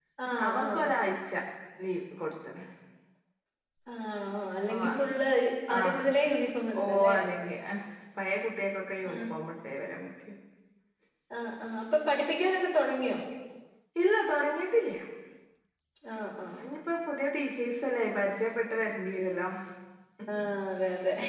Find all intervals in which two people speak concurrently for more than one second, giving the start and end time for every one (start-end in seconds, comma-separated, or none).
none